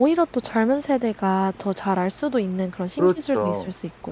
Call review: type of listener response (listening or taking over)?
taking over